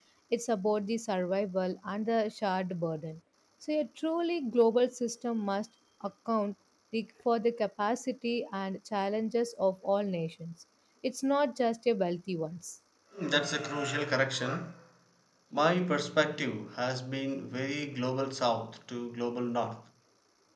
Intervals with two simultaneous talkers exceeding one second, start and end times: none

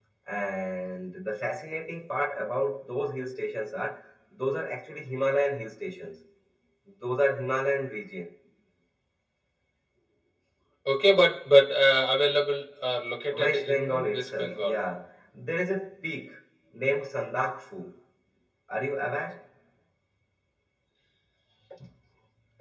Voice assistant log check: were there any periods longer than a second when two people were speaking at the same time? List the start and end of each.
13.3-14.8

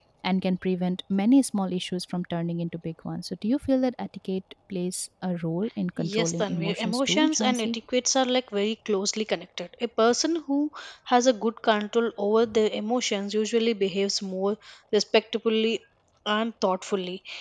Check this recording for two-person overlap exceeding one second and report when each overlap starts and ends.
6.1-7.7

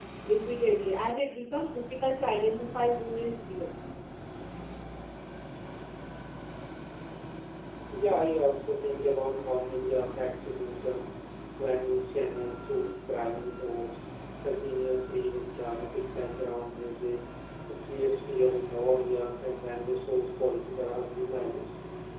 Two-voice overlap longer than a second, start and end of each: none

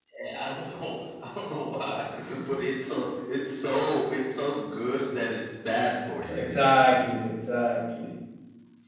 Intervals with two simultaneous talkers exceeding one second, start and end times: none

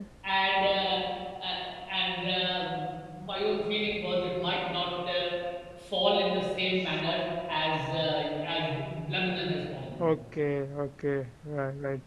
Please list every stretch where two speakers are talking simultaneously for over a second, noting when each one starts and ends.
none

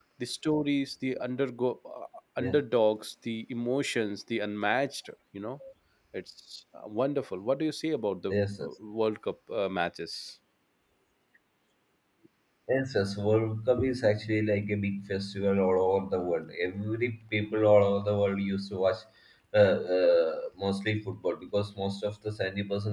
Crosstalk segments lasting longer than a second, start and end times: none

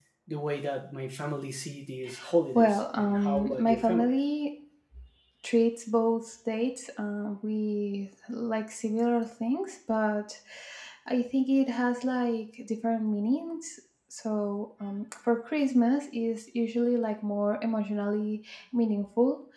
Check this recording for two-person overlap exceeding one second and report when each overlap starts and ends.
2.5-4.1

